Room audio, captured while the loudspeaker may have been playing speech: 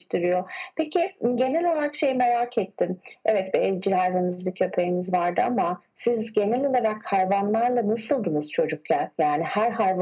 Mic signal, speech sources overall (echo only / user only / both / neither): echo only